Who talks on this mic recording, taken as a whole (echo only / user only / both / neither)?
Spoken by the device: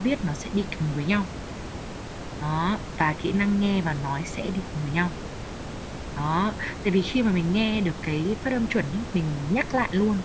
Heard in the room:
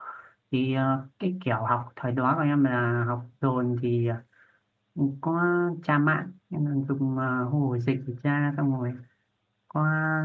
user only